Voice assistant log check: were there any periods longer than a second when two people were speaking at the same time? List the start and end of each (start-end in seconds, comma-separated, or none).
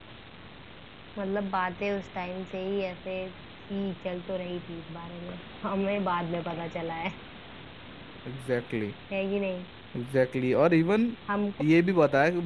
none